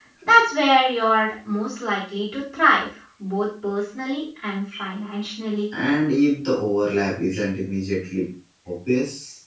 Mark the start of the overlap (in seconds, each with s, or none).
none